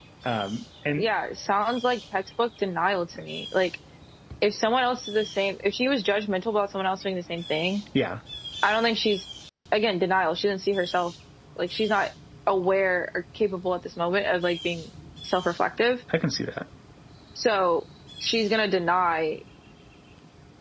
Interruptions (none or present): none